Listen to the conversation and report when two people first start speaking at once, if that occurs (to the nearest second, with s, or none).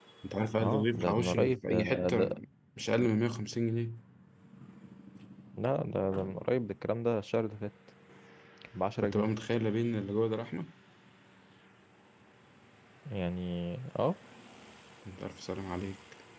1 s